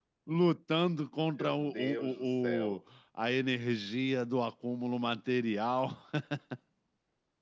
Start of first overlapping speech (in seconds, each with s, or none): 1.4 s